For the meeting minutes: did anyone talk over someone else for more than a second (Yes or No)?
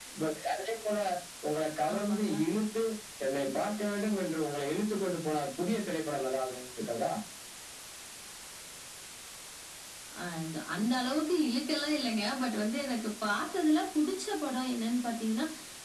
No